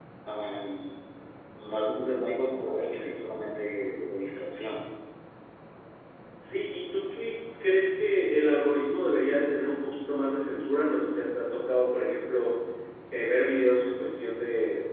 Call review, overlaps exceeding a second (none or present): none